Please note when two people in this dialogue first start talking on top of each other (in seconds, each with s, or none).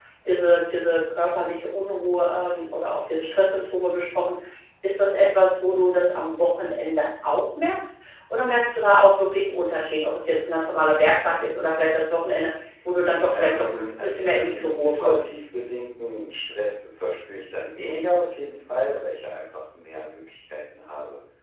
13.3 s